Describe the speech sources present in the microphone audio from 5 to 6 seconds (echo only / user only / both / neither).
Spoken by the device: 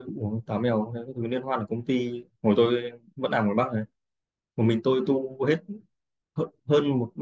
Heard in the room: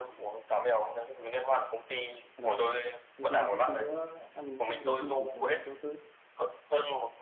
both